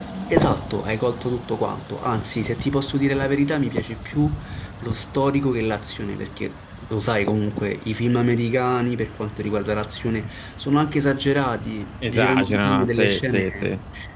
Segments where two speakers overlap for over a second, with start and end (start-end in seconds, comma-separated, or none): 12.1-13.4